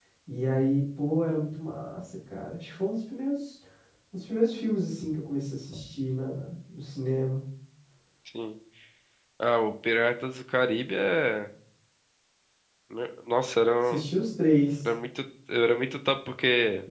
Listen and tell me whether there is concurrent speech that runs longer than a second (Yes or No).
No